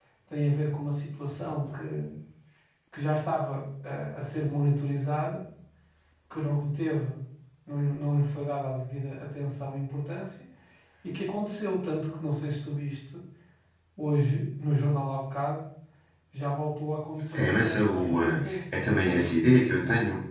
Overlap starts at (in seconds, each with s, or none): 17.3 s